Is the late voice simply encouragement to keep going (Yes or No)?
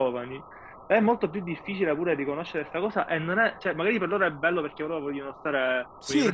No